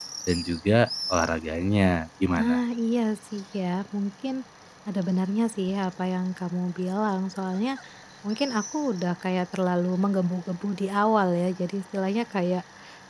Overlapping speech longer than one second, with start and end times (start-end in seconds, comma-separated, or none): none